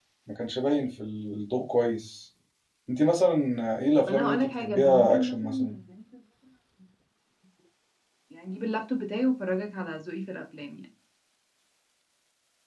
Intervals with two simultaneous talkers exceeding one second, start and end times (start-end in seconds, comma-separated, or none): 4.0-5.5